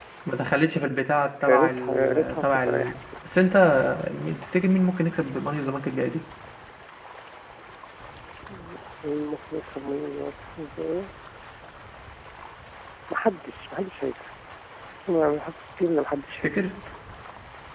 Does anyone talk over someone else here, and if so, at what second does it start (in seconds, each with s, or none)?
1.5 s